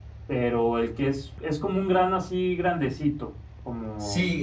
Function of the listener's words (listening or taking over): taking over